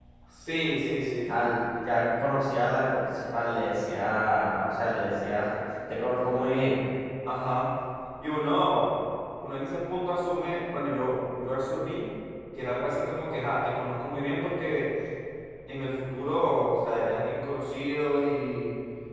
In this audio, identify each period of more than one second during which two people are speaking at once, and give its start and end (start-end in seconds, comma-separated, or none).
none